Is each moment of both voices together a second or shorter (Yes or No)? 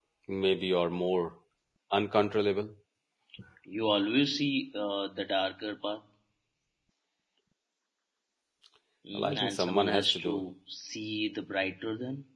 No